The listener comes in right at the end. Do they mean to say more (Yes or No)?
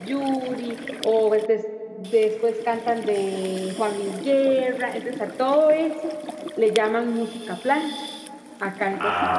No